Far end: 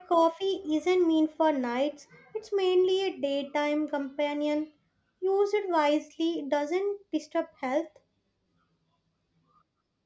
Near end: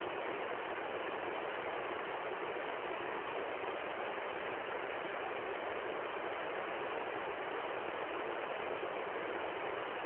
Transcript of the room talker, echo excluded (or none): none